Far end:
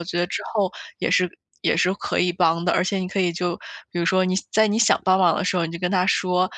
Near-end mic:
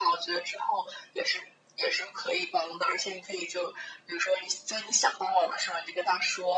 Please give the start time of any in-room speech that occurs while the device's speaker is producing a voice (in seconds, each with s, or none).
none